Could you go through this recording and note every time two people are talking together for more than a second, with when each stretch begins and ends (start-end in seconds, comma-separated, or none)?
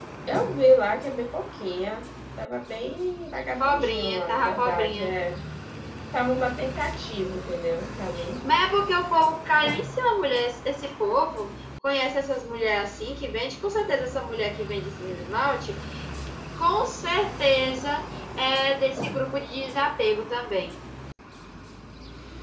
3.6-5.1